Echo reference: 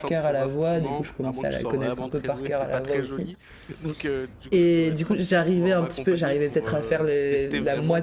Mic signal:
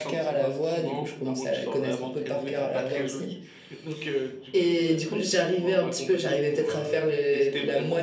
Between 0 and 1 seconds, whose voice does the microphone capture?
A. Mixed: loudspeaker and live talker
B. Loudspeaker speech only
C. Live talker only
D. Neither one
B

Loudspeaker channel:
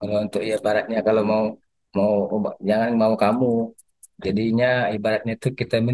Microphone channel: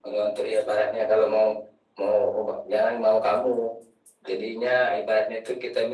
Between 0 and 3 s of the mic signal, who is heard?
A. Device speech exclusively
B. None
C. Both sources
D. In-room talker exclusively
A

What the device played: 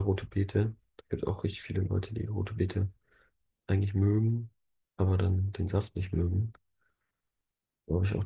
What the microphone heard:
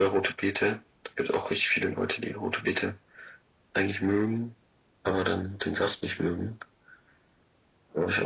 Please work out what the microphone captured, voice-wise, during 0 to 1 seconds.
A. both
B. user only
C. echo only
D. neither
C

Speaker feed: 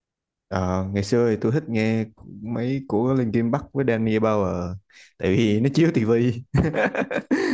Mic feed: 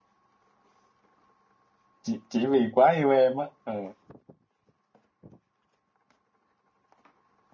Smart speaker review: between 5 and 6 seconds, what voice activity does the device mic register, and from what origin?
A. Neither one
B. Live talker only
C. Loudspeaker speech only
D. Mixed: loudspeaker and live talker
A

